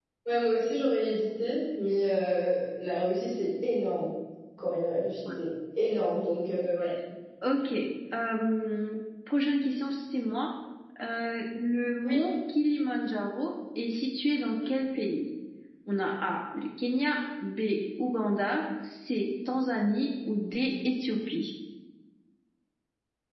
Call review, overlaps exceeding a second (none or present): none